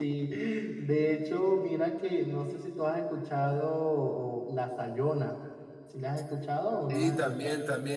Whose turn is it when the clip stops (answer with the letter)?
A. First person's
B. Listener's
B